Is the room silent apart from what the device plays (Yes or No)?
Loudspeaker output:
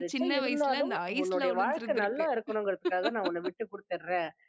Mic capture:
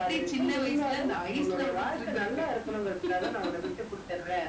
Yes